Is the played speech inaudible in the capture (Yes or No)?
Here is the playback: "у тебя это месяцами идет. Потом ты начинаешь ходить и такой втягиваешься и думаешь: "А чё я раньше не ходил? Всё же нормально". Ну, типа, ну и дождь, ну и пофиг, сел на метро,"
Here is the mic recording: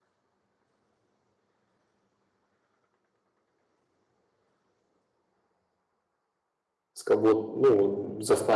Yes